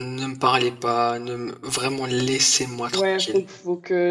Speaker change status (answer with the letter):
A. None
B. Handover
B